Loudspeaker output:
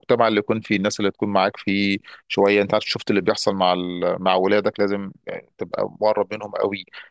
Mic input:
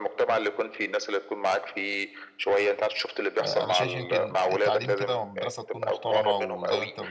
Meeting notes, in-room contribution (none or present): present